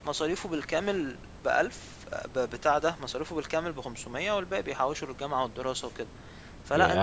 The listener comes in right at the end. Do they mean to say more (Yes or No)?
Yes